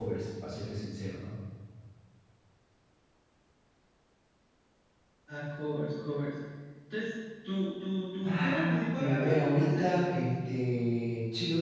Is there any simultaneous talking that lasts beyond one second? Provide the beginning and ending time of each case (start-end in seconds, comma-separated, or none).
8.2-10.1